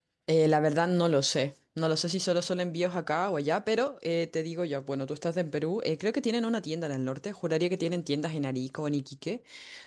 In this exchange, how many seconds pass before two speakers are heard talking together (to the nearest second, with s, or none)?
none